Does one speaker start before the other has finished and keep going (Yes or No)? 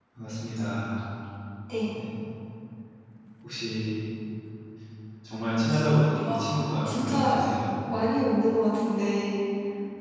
Yes